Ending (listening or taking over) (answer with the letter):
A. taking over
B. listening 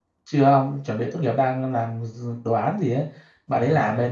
B